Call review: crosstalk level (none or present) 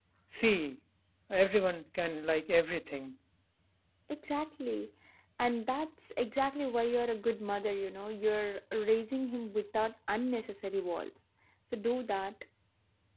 none